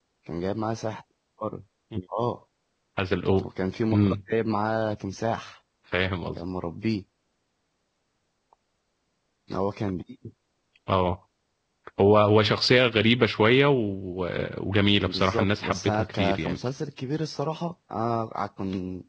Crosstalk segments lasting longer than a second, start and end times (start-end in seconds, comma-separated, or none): 15.1-16.6